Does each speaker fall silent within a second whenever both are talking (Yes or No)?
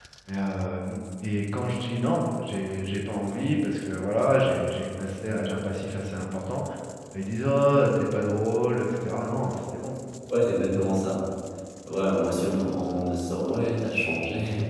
Yes